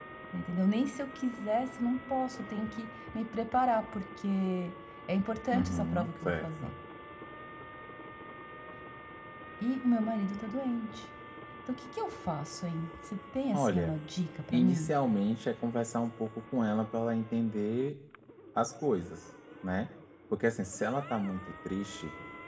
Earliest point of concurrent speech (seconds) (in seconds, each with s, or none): 5.5 s